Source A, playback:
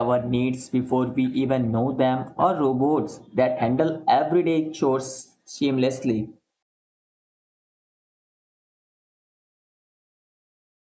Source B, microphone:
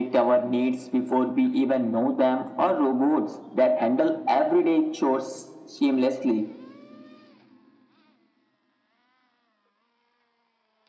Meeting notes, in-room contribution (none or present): none